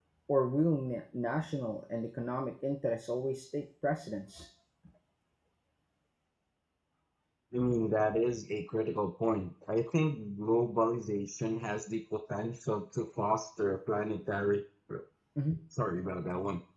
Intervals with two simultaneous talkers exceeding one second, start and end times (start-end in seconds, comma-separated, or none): none